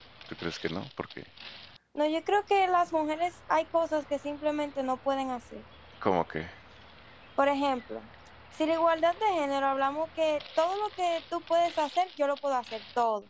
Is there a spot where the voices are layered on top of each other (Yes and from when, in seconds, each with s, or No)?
No